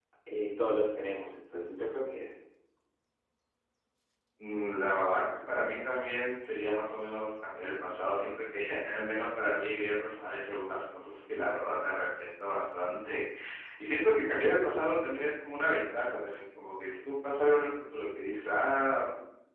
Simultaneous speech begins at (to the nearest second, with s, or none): none